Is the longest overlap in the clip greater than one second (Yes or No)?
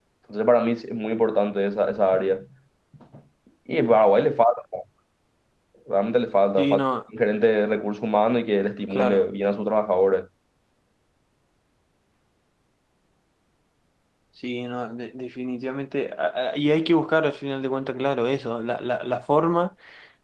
No